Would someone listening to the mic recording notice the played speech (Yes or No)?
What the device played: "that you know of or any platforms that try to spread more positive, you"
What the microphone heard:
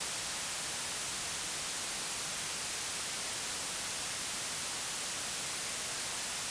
No